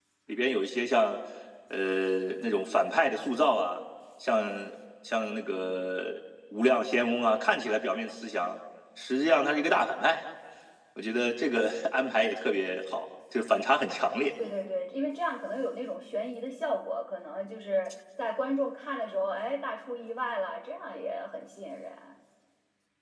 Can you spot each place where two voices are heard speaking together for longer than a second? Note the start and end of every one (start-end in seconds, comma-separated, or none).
none